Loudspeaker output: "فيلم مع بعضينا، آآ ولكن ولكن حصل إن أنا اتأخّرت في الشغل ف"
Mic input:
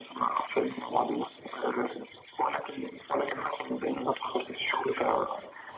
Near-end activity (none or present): none